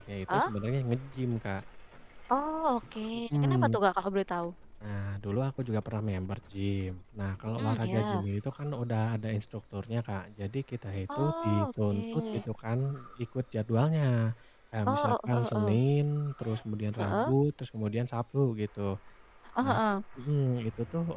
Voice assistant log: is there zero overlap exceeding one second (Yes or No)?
No